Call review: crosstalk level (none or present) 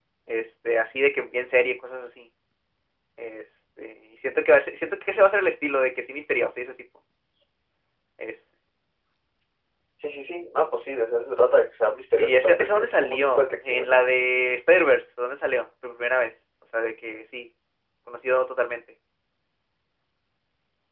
present